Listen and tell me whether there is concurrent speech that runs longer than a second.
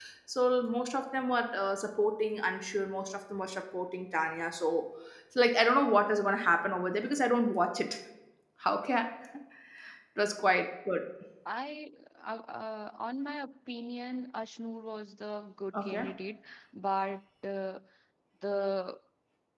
No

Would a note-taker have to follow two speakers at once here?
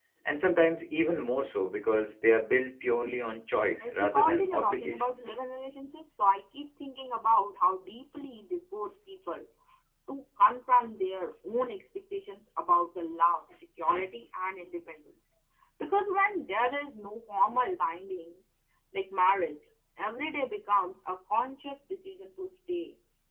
Yes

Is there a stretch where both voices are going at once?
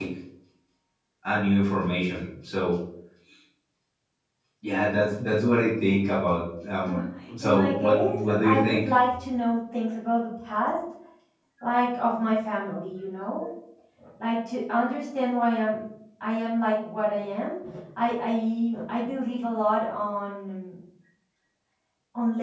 Yes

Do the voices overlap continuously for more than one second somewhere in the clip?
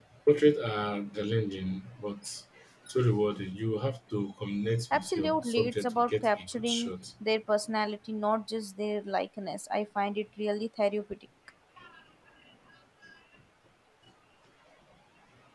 Yes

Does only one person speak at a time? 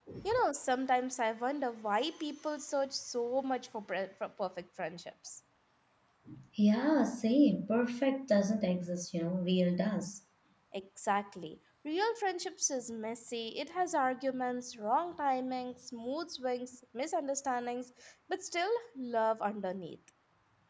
Yes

